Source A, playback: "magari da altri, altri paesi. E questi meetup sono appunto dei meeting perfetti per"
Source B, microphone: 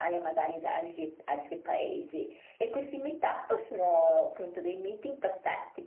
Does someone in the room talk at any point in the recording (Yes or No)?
No